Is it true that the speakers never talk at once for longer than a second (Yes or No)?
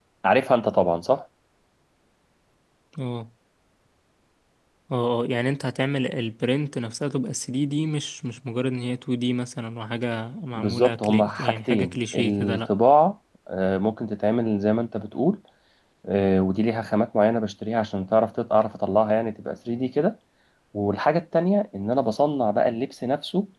No